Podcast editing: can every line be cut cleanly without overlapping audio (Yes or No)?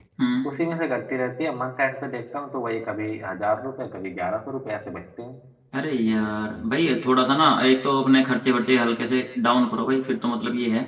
Yes